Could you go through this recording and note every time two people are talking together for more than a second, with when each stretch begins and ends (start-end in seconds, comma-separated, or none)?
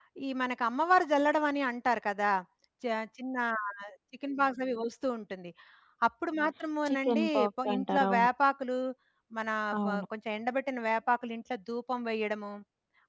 6.8-8.3